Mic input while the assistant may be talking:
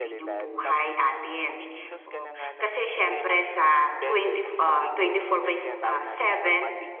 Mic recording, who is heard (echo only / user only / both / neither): both